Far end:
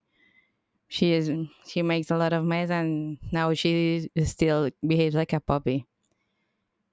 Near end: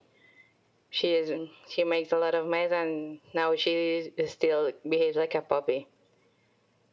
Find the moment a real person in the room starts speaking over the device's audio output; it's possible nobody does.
none

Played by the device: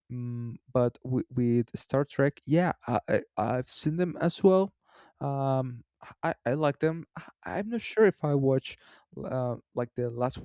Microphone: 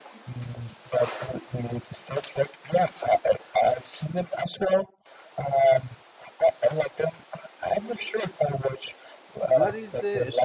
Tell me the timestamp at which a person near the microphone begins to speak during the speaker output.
9.4 s

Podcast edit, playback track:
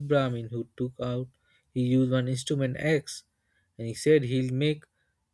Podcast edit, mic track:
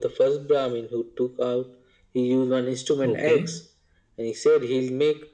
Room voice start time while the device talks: 3.0 s

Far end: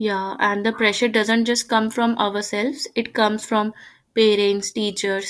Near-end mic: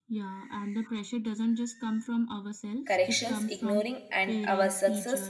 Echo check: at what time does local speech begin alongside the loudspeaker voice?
2.8 s

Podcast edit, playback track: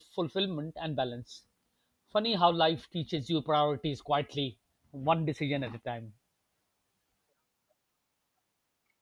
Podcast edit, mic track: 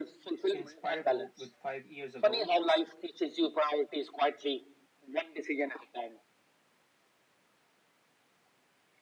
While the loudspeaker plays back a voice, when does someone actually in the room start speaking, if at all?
0.5 s

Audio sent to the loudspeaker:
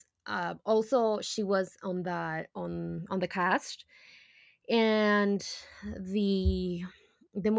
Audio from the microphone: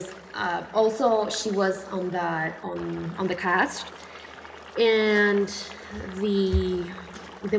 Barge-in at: none

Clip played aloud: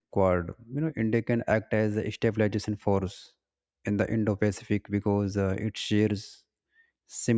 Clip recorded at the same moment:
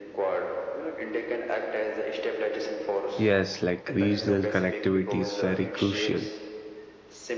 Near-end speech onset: 3.2 s

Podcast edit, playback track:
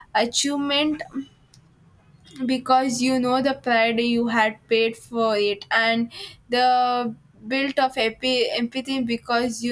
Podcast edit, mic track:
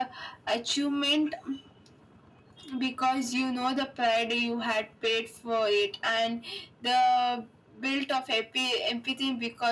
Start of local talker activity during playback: none

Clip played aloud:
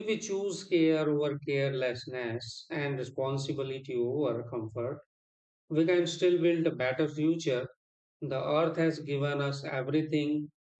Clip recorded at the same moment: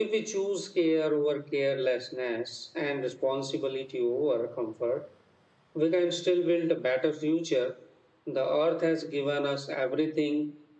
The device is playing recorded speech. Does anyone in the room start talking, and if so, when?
none

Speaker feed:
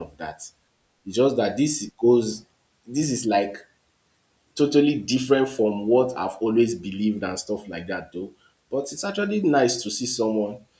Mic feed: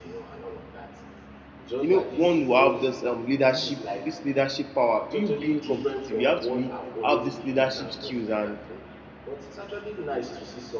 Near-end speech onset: 1.8 s

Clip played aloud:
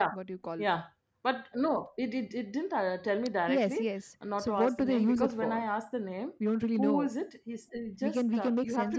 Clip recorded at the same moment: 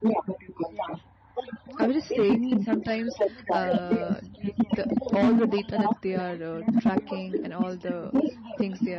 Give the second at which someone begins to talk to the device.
1.8 s

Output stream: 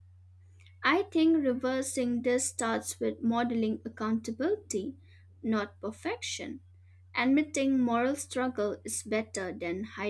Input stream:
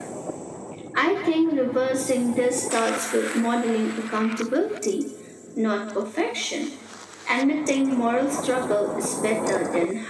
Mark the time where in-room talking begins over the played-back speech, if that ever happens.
none

